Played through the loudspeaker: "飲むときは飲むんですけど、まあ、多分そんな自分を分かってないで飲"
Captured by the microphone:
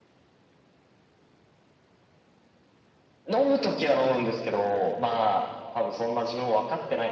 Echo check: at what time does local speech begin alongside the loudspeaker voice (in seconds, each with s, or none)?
none